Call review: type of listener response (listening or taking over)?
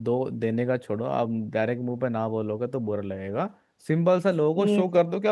listening